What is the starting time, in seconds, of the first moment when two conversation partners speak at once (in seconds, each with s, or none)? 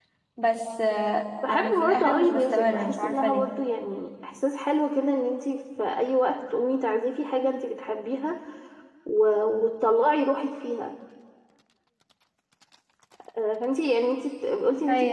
1.4 s